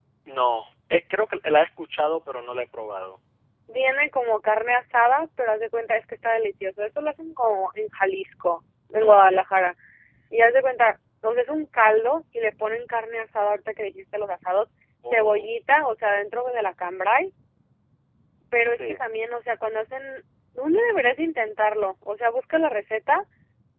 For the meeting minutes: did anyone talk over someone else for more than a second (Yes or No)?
No